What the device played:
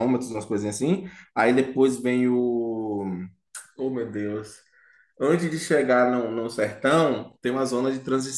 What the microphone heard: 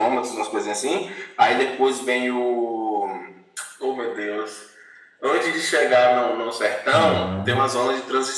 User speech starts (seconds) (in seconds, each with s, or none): 6.9 s